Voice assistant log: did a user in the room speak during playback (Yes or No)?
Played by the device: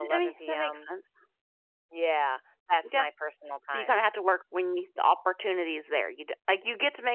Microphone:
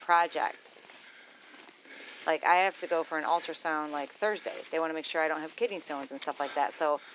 Yes